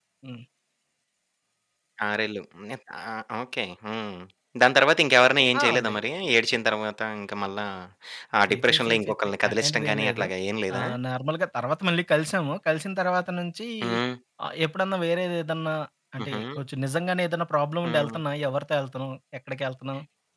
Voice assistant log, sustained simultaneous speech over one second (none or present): present